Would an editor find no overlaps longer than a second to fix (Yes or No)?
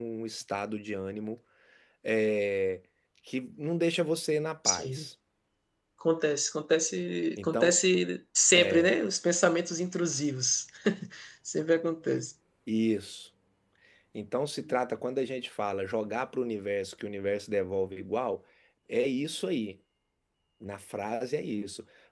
Yes